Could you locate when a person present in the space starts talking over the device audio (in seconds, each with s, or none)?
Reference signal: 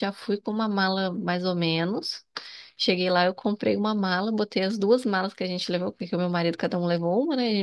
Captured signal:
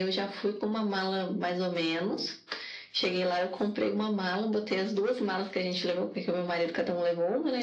none